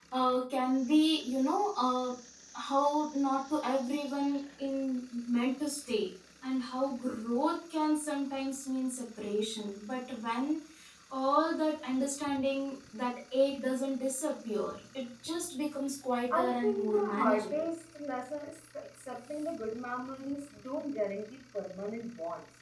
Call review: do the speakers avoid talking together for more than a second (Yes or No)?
No